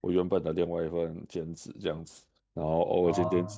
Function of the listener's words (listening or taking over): listening